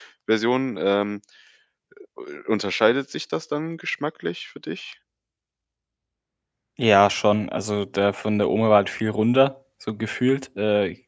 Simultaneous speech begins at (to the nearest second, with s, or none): none